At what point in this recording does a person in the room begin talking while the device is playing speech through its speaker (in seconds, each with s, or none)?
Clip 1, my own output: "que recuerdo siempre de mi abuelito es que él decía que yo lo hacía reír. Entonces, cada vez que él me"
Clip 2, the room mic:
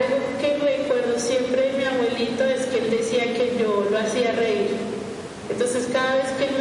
none